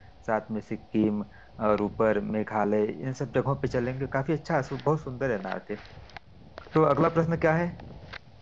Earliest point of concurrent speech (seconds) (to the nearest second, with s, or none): none